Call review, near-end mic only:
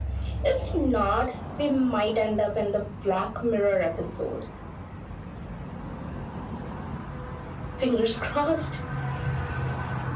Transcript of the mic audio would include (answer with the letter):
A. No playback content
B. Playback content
B